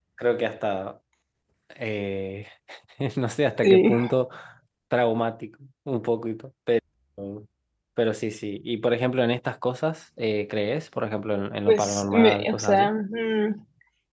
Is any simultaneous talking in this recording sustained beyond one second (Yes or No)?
Yes